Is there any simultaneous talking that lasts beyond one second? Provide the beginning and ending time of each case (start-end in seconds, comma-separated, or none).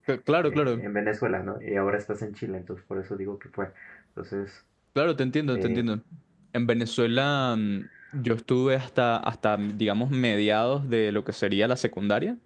none